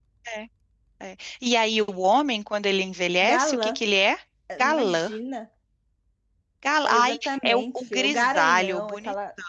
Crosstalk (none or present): present